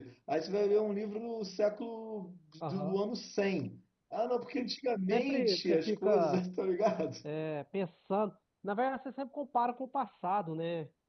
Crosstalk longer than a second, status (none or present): present